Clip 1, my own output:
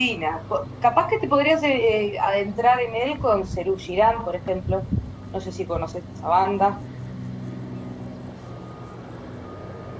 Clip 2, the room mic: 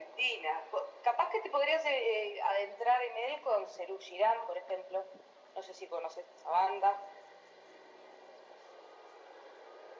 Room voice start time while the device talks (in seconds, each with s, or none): none